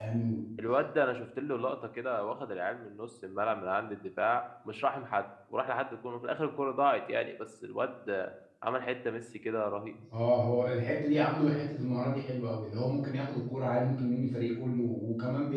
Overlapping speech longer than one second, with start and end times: none

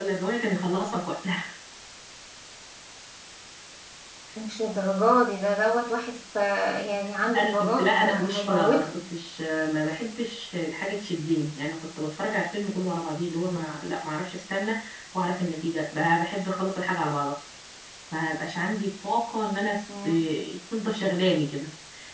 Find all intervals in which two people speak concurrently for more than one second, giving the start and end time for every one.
7.3-9.0

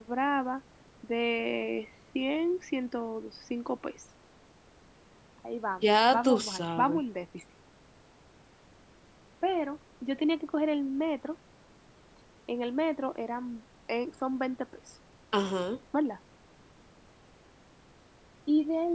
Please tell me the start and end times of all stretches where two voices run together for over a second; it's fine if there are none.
5.8-7.0

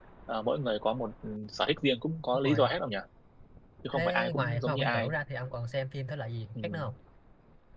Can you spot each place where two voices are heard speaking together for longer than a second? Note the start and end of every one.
3.9-5.1

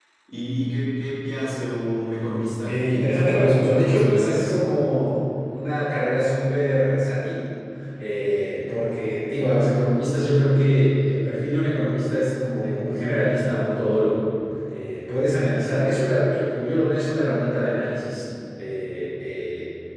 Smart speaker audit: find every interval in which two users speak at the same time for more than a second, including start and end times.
2.6-4.6

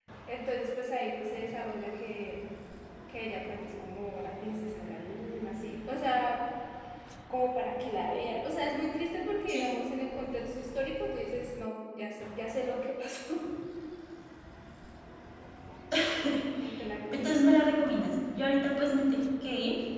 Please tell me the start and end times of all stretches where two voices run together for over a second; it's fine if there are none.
none

